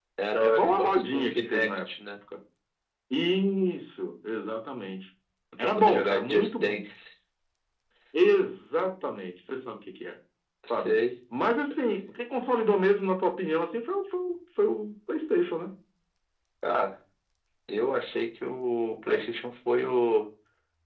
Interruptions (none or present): present